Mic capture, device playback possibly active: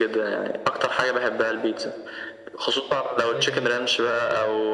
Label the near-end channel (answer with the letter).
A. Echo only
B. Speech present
B